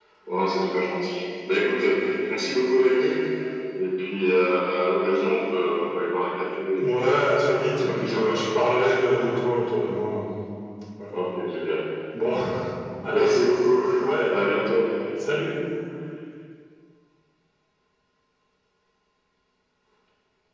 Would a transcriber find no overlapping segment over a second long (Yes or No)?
No